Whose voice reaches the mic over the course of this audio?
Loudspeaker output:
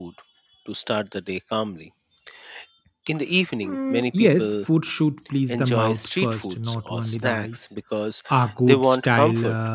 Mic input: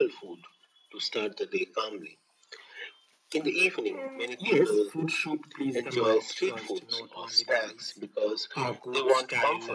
echo only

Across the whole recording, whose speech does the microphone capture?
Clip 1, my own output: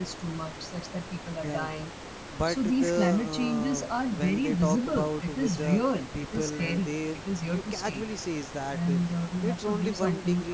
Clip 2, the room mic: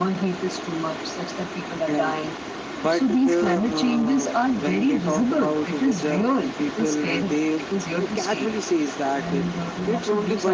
echo only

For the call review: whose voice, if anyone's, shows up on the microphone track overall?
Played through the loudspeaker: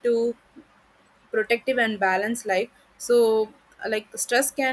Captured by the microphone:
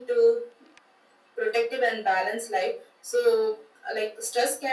echo only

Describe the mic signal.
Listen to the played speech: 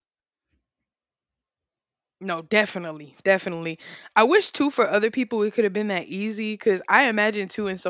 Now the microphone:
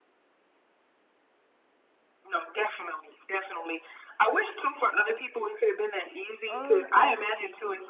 both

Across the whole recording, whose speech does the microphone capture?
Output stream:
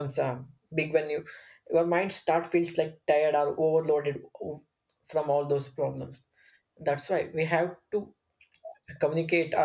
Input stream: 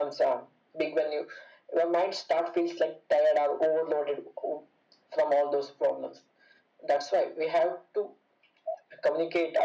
echo only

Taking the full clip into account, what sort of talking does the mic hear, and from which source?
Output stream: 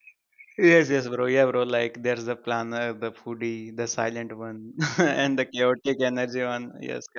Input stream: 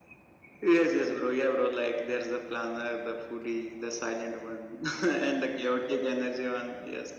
echo only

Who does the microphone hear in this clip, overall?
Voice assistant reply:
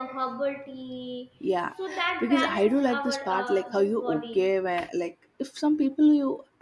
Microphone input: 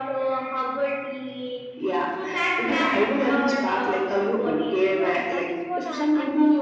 both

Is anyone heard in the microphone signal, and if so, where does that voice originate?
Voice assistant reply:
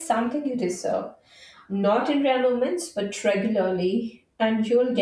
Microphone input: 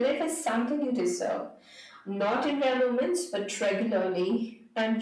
echo only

